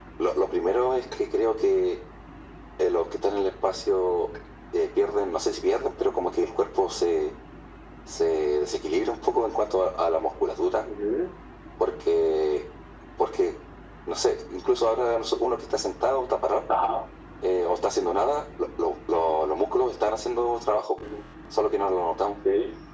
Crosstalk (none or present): none